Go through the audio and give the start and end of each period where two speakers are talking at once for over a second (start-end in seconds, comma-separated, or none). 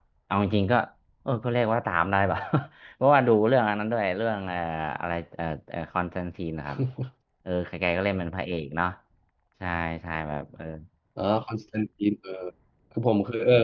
none